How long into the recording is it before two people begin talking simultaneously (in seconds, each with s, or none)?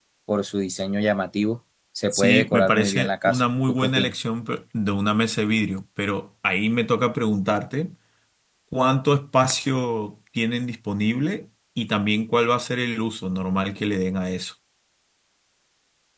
2.1 s